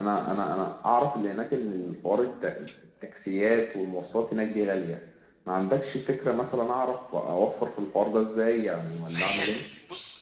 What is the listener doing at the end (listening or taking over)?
taking over